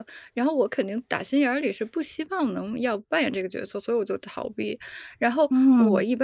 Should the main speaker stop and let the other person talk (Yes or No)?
No